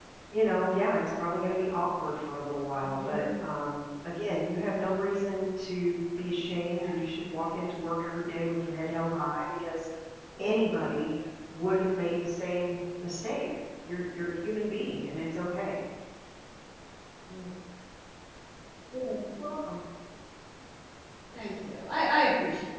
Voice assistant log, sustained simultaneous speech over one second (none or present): none